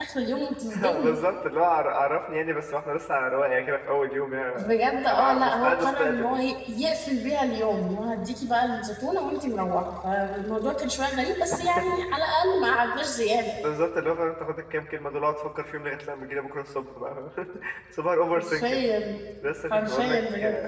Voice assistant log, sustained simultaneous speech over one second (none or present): present